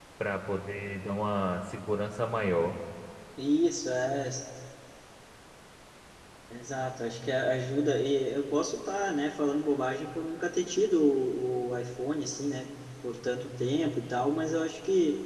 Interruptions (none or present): none